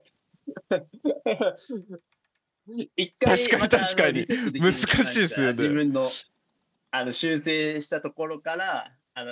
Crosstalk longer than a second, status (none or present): present